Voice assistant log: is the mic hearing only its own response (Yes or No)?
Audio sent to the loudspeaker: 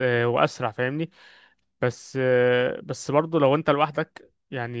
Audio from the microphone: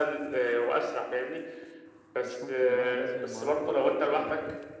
No